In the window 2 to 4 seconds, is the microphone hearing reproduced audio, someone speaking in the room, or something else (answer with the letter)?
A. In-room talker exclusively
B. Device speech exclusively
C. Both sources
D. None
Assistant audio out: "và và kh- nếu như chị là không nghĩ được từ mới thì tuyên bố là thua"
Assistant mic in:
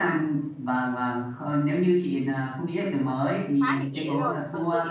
C